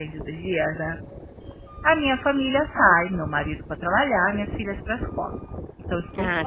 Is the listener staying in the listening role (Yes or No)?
No